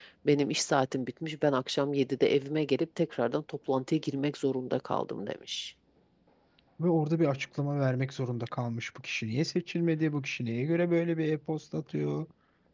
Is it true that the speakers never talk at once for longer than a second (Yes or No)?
Yes